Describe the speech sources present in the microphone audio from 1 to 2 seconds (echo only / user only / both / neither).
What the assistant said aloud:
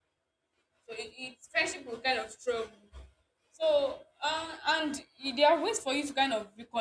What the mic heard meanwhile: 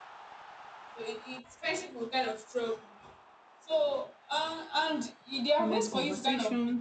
echo only